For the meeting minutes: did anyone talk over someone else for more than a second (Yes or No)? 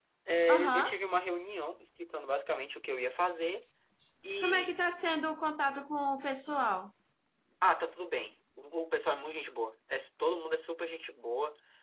No